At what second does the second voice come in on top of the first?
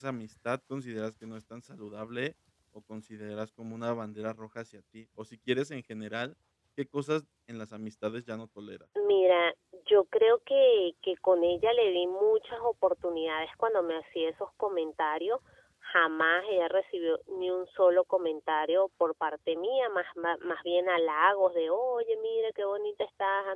none

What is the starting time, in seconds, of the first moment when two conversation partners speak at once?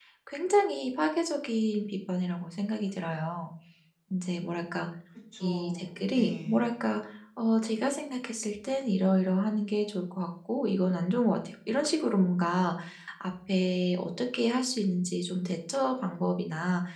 5.4 s

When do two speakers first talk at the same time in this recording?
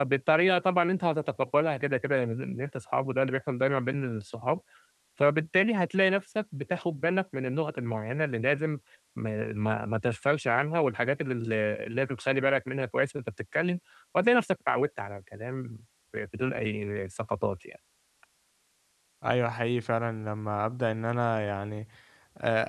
none

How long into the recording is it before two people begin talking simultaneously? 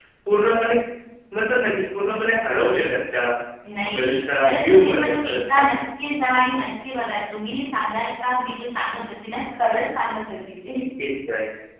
4.0 s

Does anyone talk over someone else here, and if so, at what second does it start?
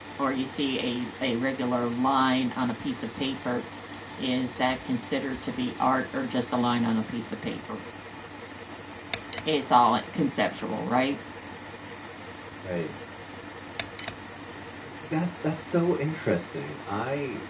none

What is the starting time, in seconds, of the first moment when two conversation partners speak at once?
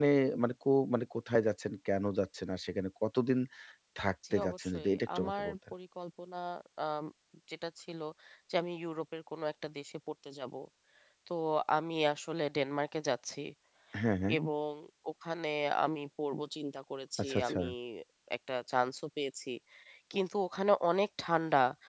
4.3 s

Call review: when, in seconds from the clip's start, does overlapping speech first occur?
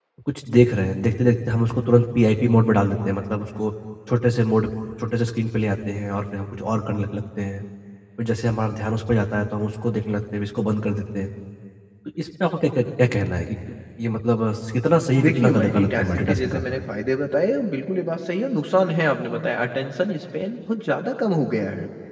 15.2 s

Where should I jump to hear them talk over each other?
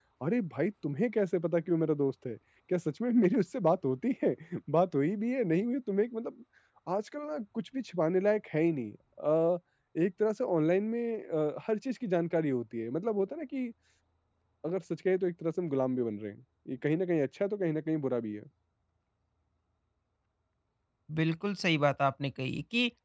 none

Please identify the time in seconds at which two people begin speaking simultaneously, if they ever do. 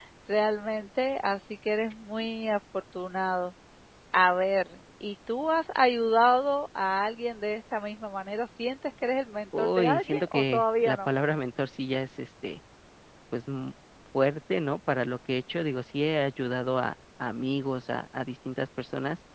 9.5 s

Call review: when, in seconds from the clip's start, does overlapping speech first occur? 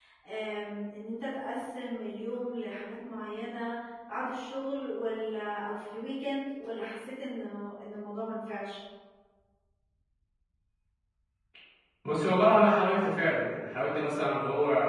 none

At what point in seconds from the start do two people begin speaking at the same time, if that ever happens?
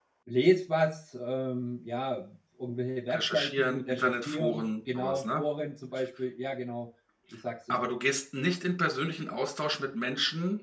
3.1 s

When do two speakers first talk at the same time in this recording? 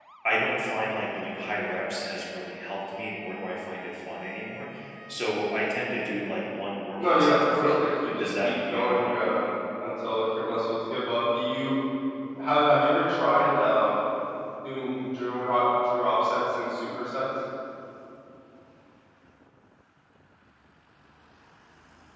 7.0 s

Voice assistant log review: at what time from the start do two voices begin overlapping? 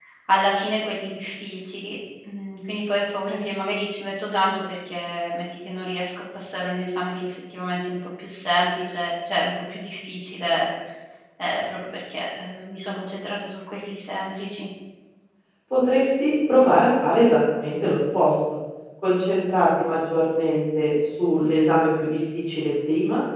none

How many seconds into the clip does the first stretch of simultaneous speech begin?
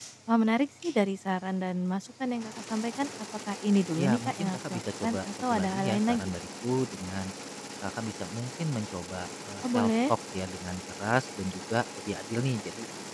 4.0 s

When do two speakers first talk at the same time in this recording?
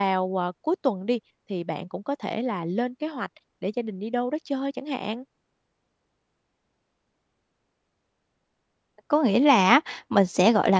none

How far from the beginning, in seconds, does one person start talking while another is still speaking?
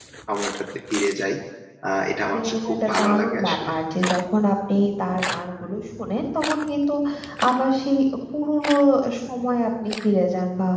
2.4 s

